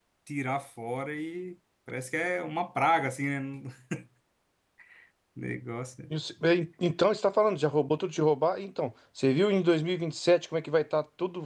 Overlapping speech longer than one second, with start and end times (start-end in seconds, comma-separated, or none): none